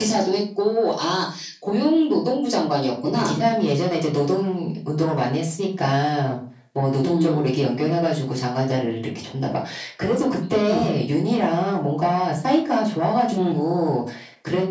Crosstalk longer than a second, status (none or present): none